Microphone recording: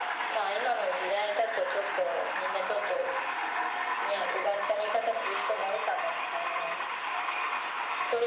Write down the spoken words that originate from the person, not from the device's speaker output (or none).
none